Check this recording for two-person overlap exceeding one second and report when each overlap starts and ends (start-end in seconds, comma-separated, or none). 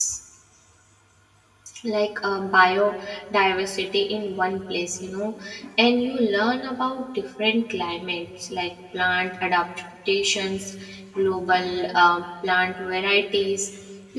none